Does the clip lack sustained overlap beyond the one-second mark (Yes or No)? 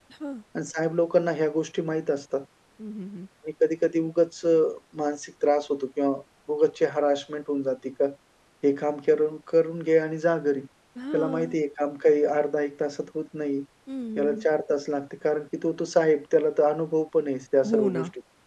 Yes